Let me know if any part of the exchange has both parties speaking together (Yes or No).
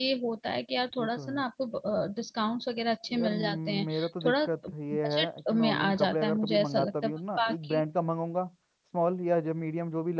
Yes